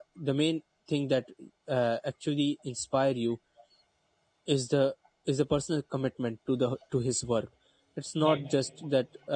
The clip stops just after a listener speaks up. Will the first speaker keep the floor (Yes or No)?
Yes